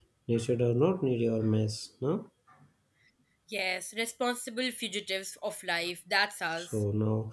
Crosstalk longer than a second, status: none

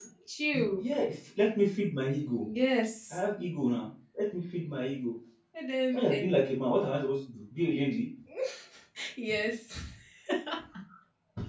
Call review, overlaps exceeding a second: none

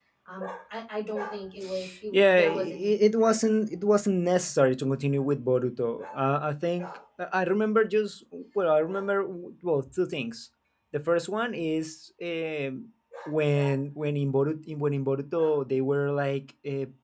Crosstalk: present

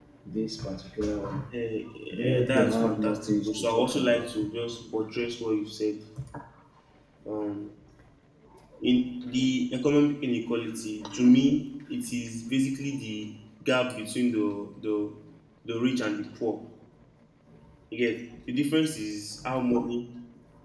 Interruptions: present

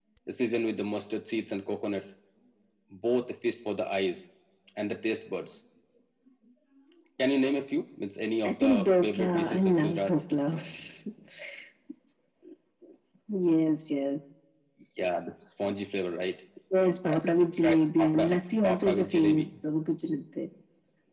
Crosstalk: present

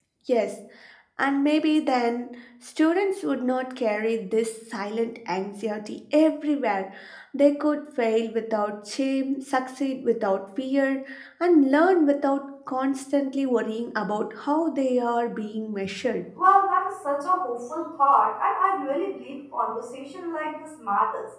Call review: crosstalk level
none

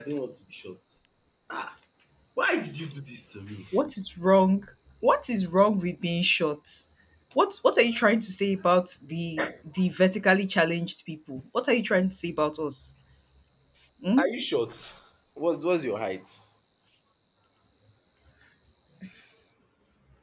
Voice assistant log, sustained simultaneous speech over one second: none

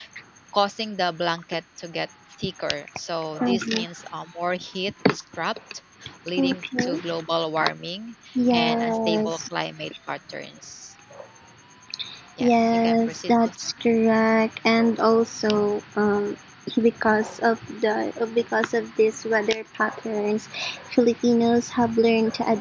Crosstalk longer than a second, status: present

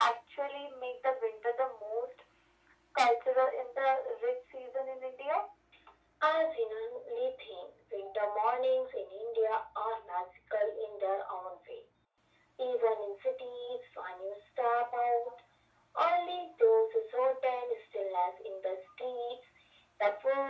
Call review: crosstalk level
none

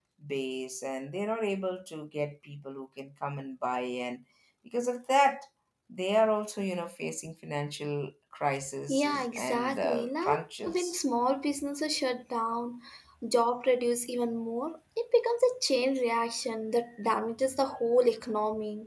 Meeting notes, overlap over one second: present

